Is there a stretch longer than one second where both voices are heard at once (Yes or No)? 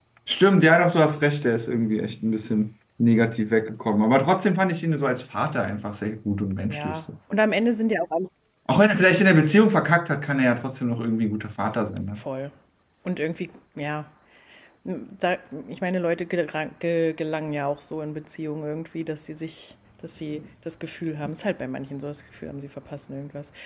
No